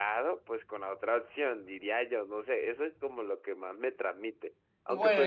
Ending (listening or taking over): listening